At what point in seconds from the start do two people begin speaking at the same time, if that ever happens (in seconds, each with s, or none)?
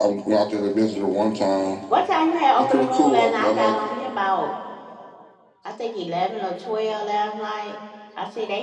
2.6 s